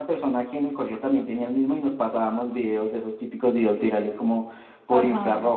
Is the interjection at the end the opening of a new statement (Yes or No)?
Yes